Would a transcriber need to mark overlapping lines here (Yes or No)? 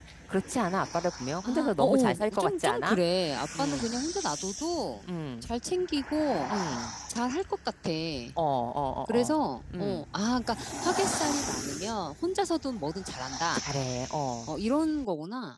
Yes